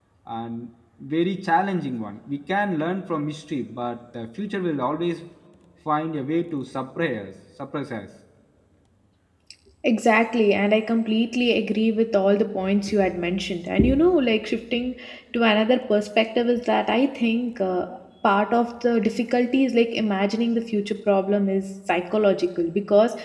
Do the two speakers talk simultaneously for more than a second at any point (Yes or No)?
No